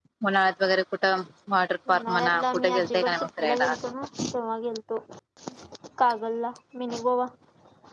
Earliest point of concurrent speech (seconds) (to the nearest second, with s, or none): 2 s